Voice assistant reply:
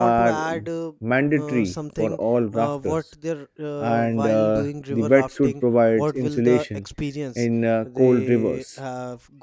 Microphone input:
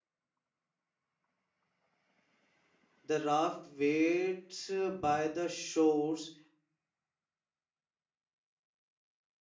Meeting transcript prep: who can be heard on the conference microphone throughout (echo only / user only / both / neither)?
user only